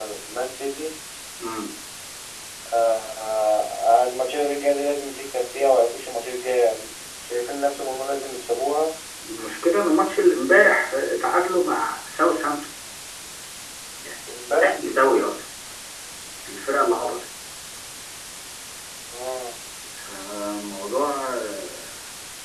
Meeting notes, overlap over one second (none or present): none